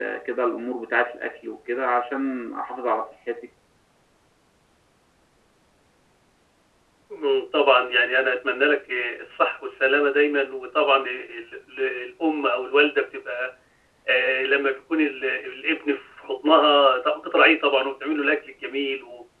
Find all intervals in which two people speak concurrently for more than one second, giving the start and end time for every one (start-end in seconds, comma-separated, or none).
none